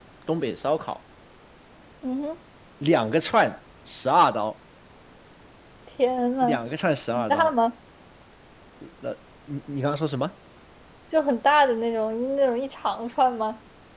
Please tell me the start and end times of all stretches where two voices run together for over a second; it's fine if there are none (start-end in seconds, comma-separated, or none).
none